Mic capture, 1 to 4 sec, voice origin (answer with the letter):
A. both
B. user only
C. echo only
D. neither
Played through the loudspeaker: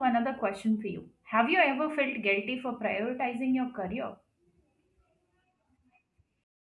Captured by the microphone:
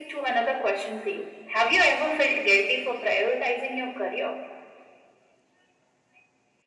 C